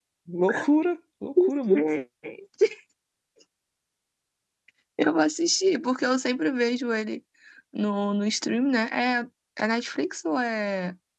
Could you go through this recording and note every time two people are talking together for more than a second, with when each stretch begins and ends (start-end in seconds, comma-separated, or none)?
none